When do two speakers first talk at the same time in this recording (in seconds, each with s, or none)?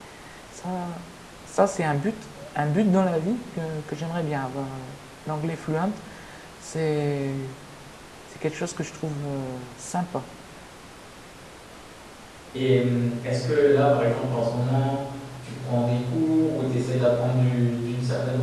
none